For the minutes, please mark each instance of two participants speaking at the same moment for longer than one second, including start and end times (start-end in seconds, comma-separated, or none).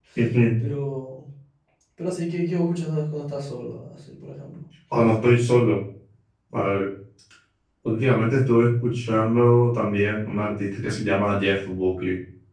none